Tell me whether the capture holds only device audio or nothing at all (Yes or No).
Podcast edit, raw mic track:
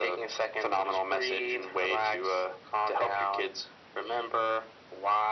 Yes